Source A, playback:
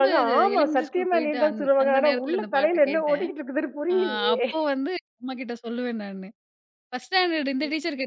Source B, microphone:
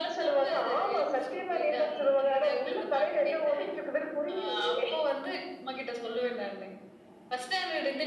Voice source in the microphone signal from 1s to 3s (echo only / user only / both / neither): echo only